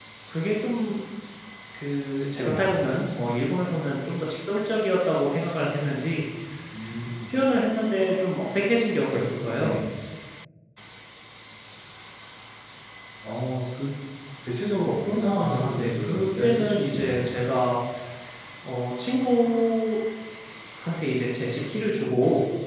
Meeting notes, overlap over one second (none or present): present